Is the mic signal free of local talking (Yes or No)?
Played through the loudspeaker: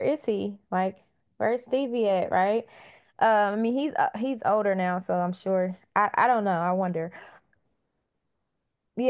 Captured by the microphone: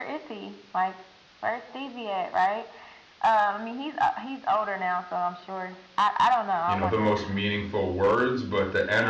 No